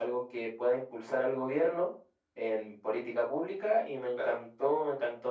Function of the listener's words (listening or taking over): listening